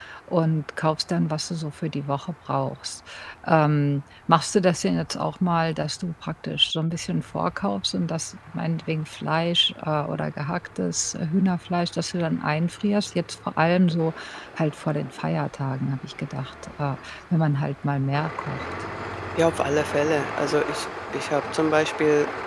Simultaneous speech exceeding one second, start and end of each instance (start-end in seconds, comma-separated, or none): none